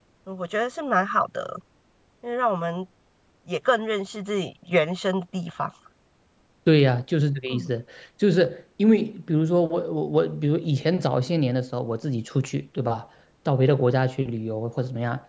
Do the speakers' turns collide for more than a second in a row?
No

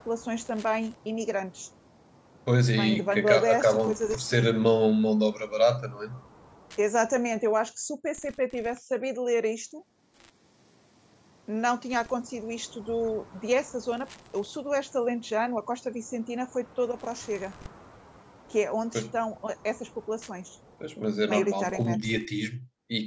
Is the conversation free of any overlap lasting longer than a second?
No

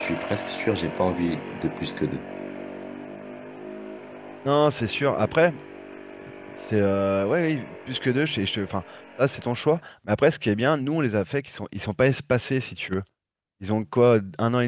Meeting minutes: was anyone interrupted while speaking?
No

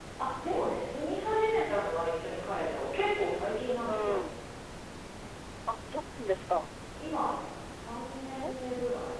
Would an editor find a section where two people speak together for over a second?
No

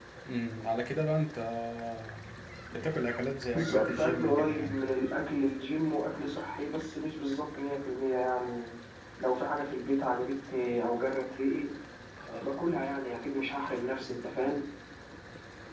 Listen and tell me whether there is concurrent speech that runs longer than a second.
Yes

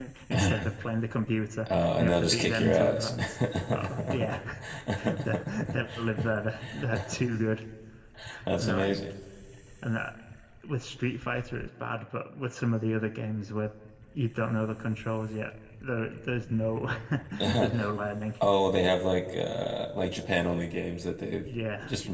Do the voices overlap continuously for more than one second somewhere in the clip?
Yes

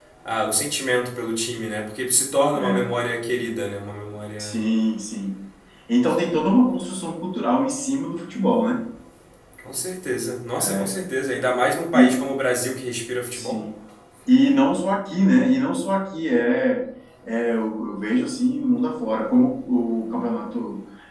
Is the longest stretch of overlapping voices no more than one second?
Yes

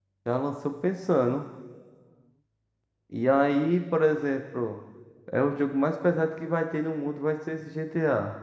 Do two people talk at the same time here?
No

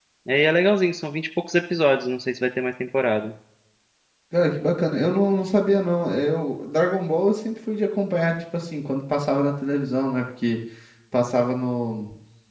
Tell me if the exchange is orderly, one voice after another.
Yes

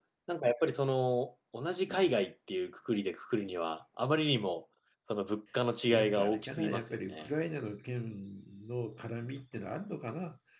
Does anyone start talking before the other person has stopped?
Yes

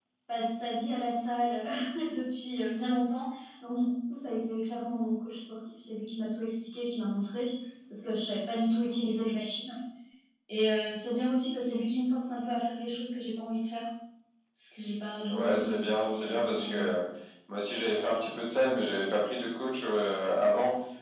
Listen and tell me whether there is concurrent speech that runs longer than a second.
Yes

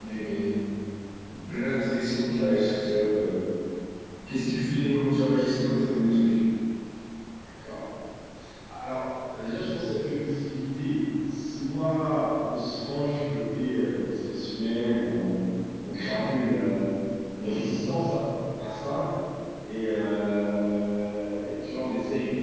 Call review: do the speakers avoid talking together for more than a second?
Yes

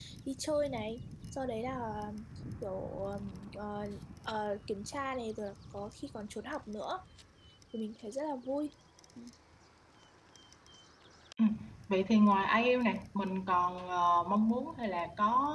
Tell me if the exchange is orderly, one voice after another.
Yes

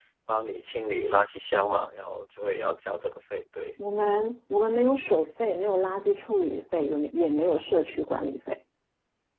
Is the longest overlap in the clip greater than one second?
No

